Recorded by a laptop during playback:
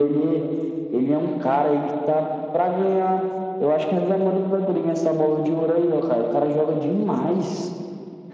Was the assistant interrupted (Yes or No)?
No